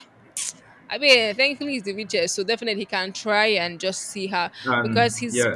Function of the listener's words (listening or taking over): listening